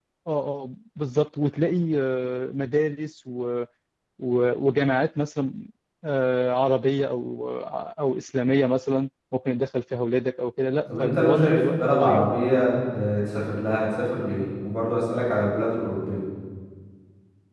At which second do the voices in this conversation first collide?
10.9 s

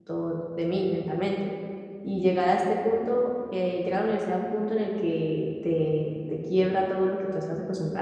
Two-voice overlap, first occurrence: none

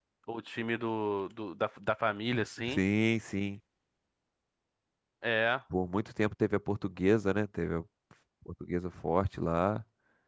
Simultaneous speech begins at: none

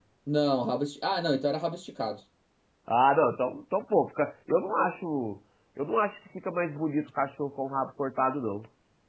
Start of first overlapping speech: none

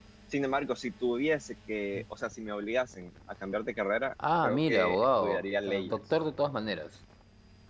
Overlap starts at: 4.2 s

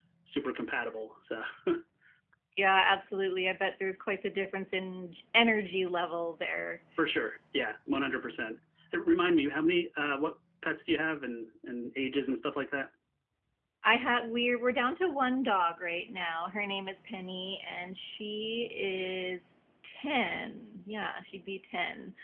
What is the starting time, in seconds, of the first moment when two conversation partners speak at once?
none

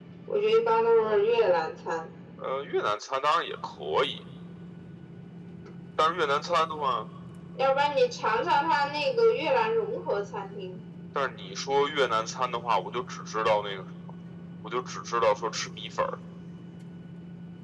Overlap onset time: none

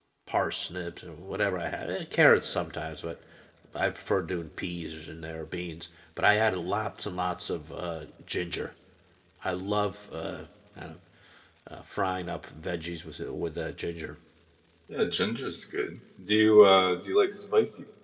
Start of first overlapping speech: none

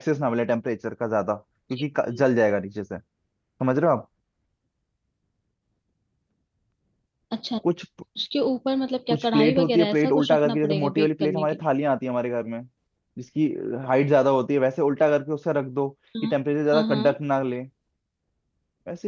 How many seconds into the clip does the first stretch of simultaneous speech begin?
9.1 s

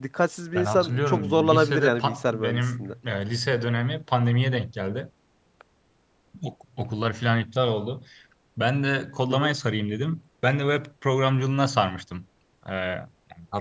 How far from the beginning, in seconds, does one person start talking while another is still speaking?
0.6 s

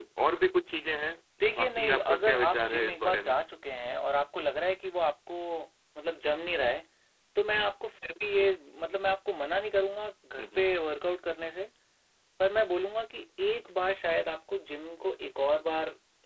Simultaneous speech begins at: 1.6 s

